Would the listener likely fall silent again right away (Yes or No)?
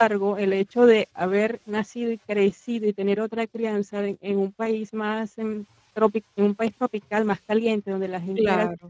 Yes